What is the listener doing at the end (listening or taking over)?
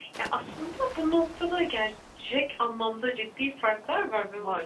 listening